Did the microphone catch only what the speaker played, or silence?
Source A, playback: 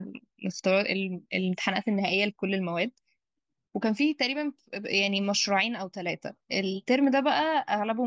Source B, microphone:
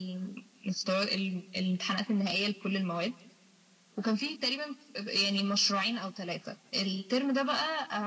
Yes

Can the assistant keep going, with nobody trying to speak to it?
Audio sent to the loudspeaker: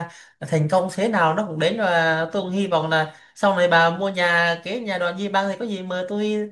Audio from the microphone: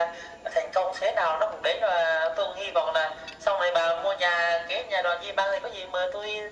Yes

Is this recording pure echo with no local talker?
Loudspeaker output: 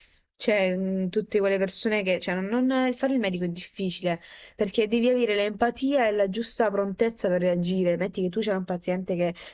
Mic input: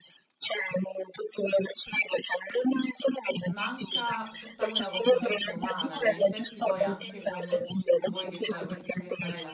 No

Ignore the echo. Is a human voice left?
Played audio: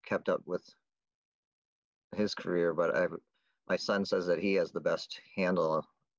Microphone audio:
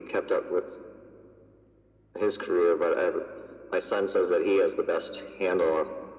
No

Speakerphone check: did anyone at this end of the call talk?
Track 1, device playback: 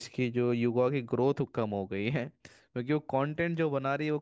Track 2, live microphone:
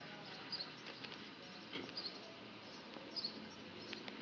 No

